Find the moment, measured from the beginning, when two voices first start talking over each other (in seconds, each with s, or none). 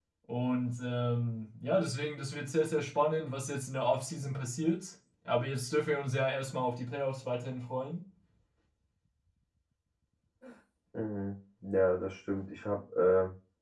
none